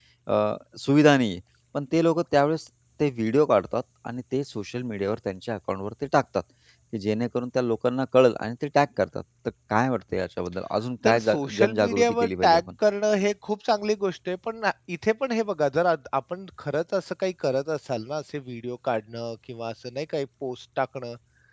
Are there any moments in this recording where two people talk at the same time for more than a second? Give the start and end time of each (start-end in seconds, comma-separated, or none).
11.1-12.6